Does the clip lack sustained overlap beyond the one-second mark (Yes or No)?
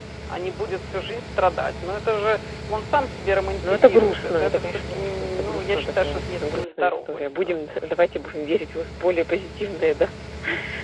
No